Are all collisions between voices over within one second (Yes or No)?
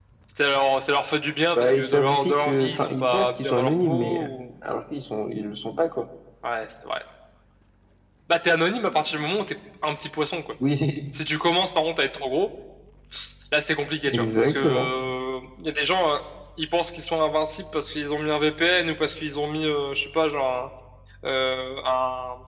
No